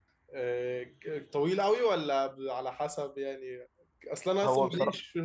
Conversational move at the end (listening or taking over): listening